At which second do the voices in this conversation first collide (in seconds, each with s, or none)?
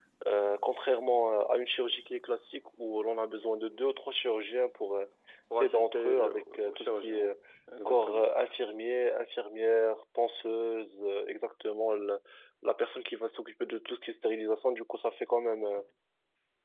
5.5 s